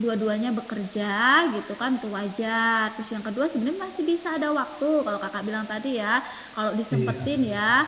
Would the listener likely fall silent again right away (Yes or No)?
Yes